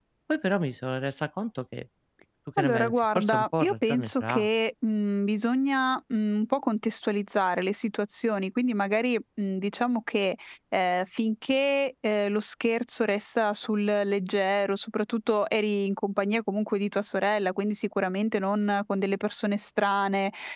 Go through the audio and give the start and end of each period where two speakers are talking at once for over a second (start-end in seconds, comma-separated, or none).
2.6-4.5